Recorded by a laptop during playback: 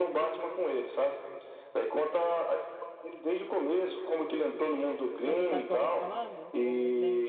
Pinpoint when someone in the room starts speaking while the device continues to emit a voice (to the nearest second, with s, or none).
5 s